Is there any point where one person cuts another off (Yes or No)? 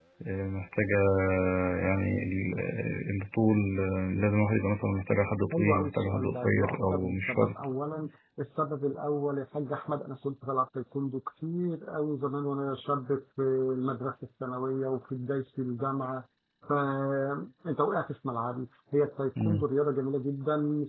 Yes